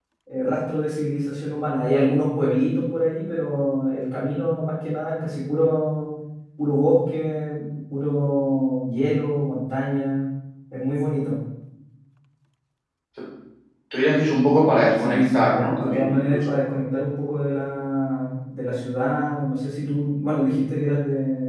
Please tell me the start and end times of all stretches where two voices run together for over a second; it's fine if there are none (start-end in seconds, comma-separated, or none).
15.0-16.5